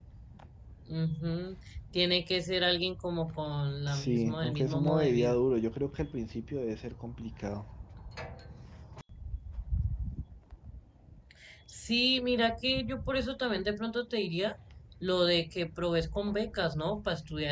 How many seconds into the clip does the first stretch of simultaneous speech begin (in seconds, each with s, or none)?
3.9 s